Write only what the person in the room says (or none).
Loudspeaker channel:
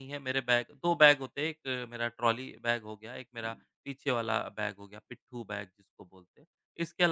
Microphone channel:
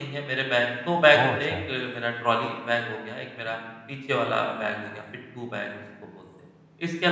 ओह! अच्छा।